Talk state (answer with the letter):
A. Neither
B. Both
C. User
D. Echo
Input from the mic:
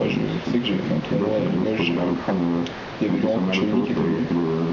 B